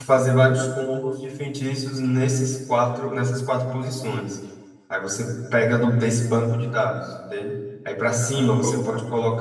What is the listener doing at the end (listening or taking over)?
listening